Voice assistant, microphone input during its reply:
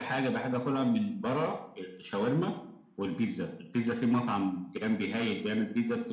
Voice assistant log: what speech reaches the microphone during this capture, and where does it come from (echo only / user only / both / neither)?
echo only